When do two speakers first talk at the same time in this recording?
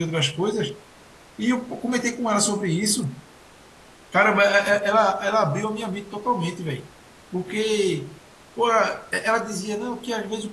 none

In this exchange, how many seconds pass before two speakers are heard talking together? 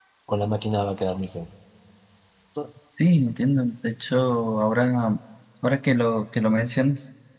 none

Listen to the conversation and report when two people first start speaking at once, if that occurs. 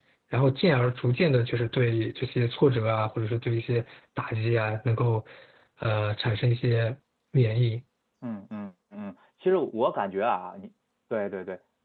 none

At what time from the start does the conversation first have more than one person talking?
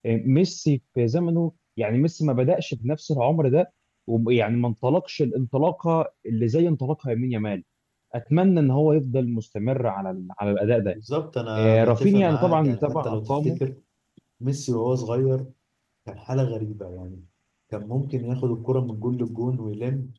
11.6 s

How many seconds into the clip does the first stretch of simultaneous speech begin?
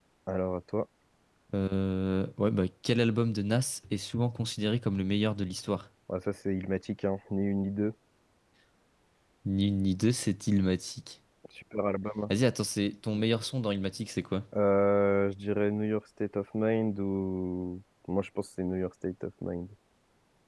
none

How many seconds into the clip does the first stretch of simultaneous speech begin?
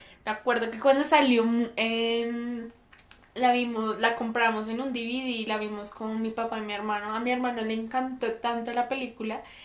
none

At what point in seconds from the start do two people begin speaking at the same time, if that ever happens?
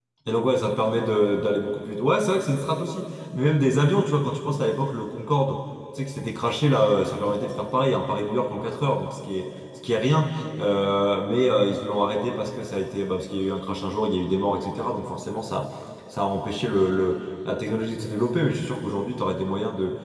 none

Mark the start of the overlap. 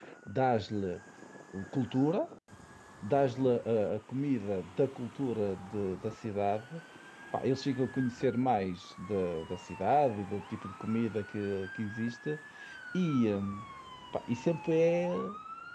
none

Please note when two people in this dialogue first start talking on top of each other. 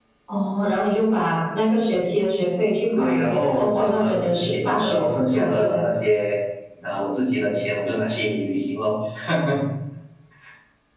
3.0 s

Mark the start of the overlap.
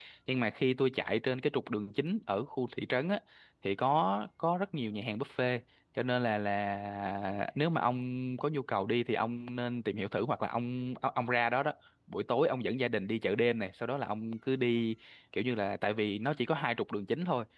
none

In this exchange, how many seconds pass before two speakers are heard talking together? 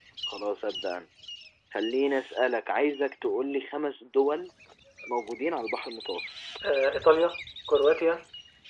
none

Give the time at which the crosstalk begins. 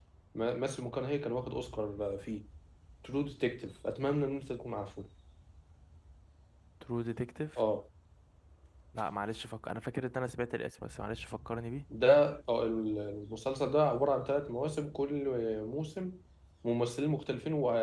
none

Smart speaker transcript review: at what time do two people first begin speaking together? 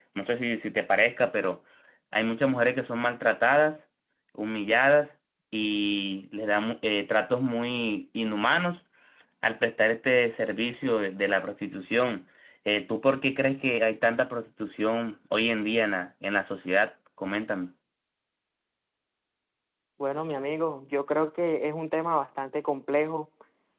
none

